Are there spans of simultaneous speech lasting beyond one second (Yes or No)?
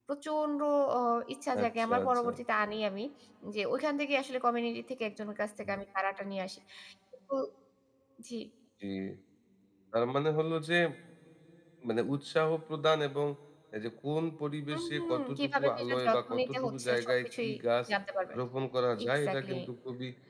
Yes